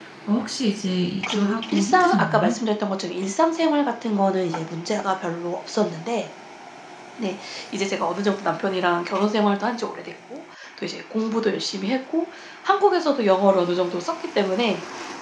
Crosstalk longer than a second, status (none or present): present